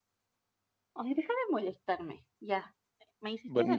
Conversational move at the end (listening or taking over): taking over